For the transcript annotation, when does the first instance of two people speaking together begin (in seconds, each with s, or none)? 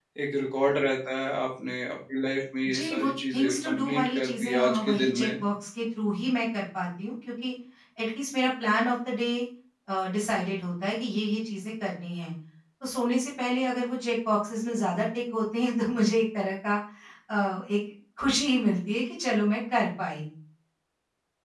2.6 s